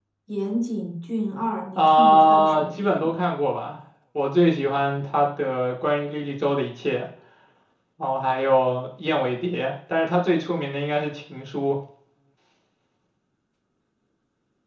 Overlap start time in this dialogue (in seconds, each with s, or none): 1.8 s